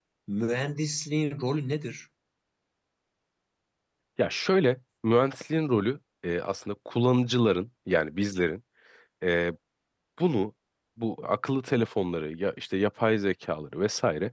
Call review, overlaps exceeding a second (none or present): none